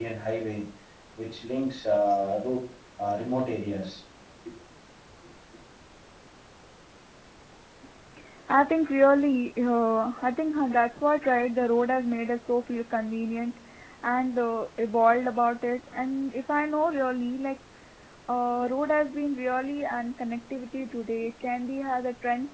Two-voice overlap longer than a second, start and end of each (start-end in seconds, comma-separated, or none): none